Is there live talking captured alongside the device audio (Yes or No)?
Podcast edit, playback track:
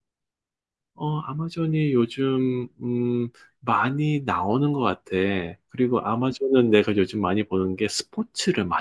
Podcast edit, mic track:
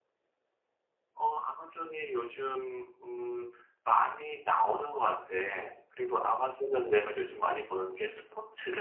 No